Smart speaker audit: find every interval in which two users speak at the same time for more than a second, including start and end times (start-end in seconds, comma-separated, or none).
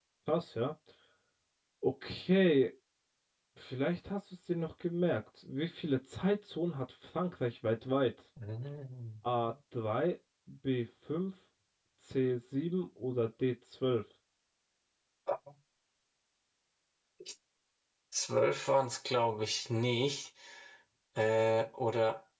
none